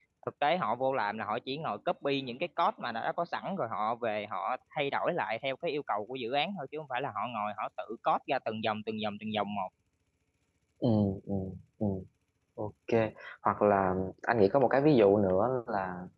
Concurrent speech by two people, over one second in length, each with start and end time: none

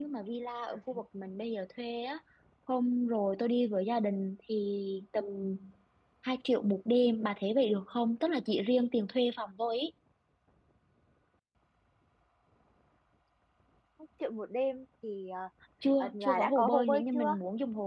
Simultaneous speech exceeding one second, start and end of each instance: 16.0-17.4

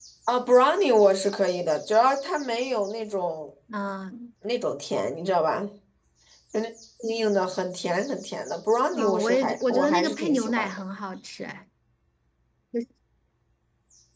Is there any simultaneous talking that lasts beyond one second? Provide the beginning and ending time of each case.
8.9-10.7

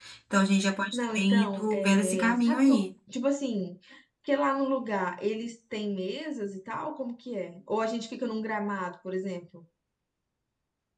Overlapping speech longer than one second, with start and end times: 0.9-2.9

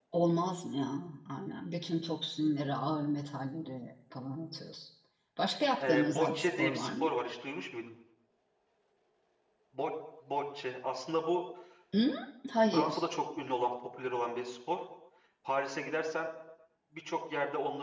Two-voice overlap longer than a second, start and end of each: 5.8-7.1

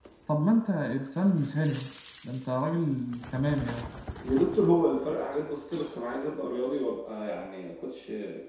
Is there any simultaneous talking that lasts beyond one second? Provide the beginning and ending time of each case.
none

